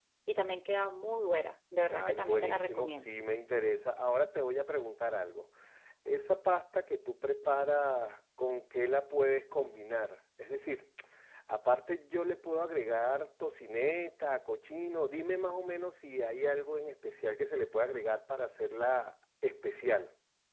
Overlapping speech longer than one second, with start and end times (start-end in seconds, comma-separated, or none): 1.9-3.1